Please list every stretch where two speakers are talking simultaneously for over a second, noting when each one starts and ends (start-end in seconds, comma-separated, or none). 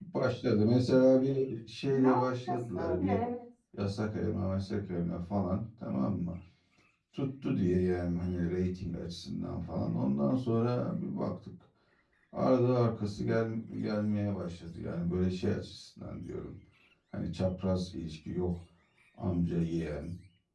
1.9-3.2